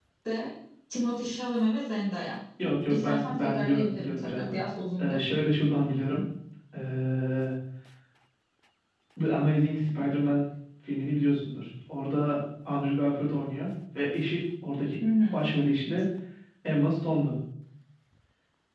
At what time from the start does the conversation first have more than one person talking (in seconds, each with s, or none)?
2.9 s